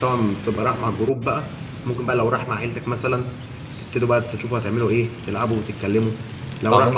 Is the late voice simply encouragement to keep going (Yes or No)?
Yes